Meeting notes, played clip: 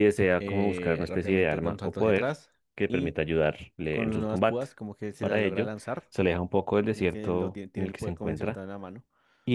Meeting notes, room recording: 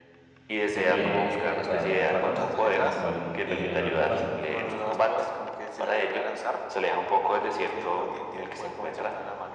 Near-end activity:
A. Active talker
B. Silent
A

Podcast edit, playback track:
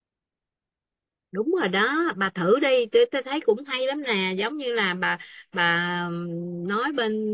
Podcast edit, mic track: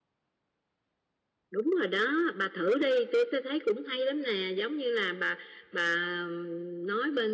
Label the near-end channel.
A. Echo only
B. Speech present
A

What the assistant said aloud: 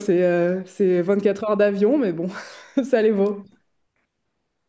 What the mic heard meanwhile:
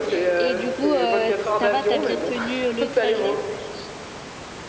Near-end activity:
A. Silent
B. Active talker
B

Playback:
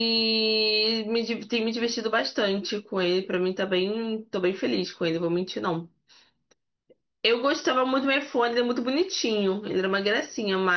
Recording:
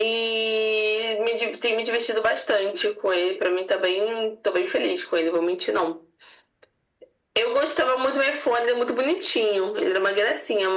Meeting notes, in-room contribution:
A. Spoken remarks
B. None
B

